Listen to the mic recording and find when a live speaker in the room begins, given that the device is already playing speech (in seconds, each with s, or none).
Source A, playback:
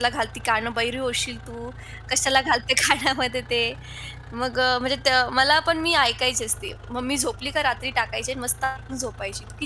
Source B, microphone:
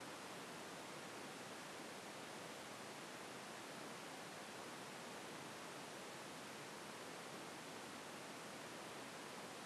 none